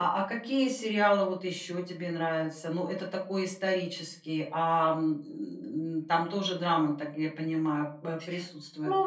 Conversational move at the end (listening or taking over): taking over